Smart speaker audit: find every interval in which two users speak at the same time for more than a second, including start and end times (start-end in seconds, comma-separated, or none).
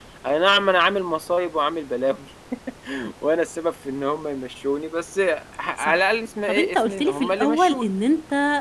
6.5-7.9